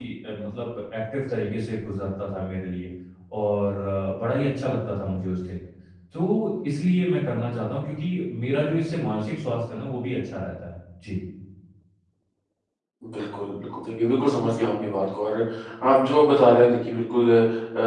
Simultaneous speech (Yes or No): No